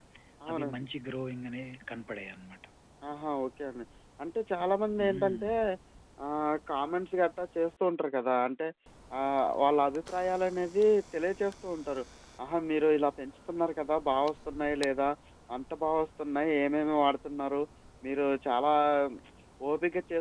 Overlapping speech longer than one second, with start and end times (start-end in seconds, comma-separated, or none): none